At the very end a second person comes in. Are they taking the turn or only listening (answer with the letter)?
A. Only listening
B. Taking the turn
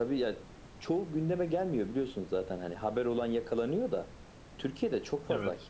A